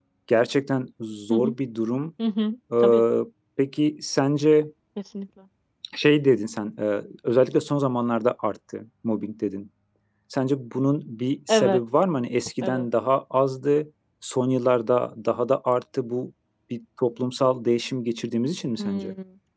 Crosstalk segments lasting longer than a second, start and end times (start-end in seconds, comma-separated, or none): none